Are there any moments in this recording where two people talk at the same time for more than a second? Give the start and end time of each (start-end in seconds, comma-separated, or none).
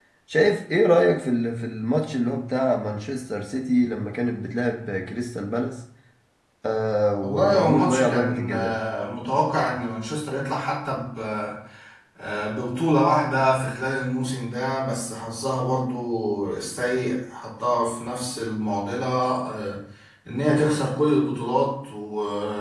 7.2-8.7